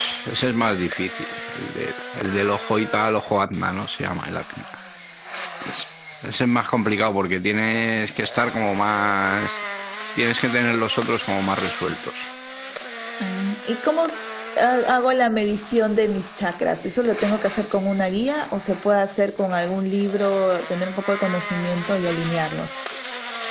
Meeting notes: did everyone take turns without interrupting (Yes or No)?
Yes